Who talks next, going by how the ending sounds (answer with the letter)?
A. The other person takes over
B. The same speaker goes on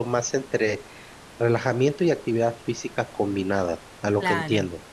A